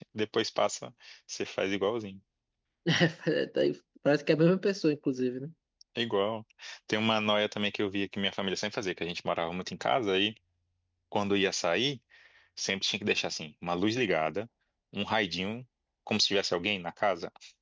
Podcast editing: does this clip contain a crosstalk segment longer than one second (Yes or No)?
No